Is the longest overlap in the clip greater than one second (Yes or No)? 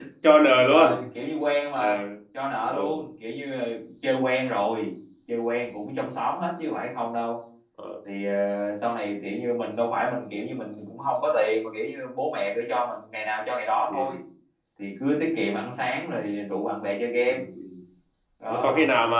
No